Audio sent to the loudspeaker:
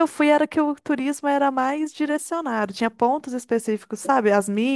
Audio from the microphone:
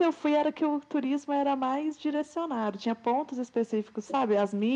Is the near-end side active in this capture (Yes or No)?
No